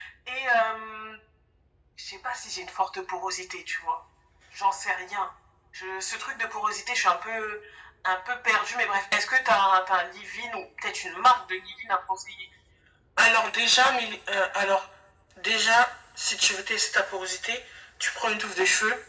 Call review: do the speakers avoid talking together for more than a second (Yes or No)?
Yes